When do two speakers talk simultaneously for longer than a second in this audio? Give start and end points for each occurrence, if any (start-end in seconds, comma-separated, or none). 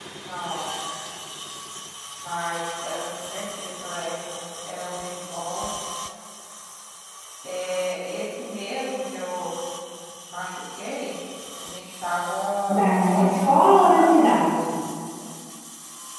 12.8-14.1